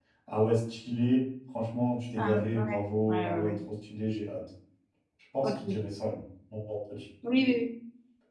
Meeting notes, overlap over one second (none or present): present